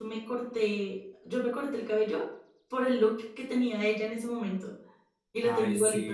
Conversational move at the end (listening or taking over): taking over